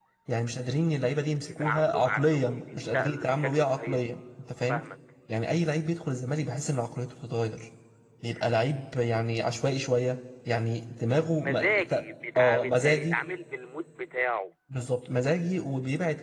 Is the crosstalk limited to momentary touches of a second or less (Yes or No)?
No